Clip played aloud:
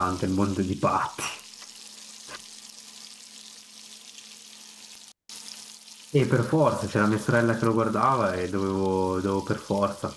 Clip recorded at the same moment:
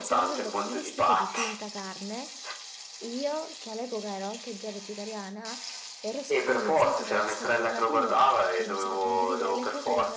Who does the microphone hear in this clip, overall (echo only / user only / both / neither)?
both